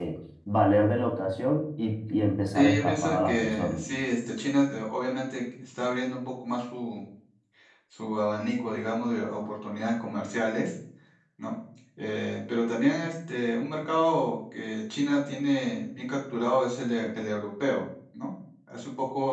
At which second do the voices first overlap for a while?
2.5 s

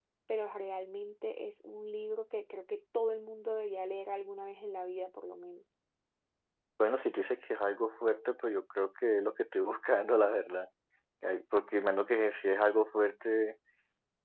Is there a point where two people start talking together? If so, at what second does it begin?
none

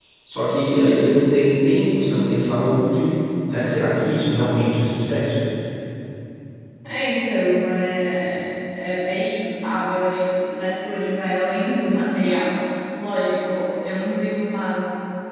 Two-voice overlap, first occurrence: none

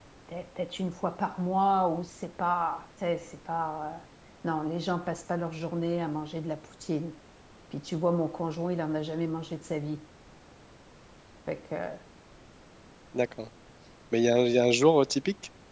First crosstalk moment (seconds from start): none

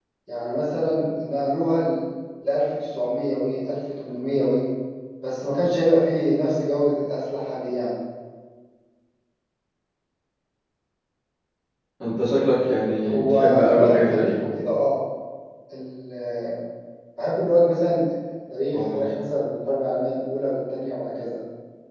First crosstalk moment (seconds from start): 13.0 s

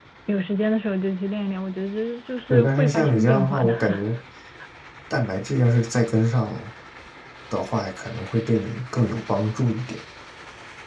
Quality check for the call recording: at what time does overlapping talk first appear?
2.5 s

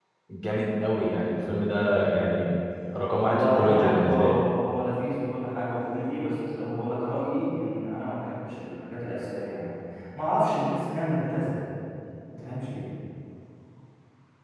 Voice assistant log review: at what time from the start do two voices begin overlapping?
3.2 s

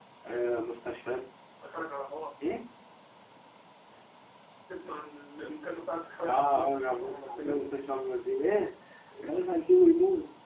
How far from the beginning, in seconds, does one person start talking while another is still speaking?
6.2 s

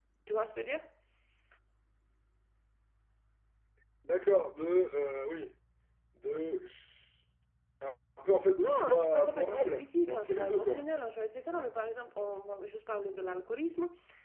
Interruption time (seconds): 8.6 s

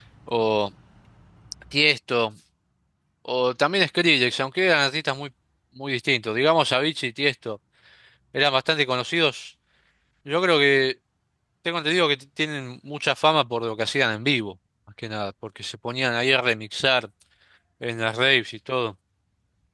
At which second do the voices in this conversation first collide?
none

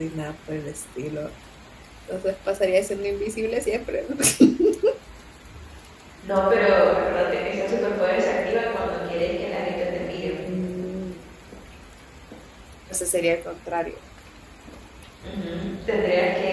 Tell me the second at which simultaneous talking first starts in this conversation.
none

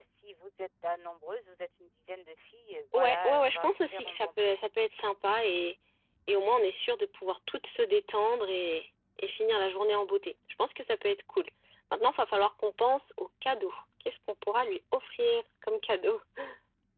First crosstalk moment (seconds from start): 2.9 s

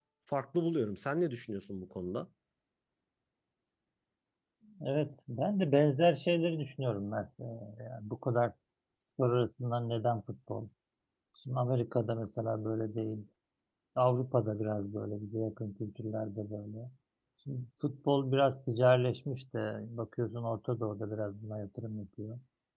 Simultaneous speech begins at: none

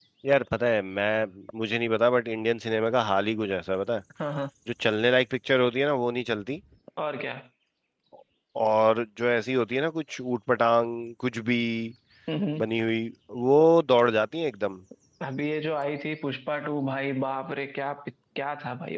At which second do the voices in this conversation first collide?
none

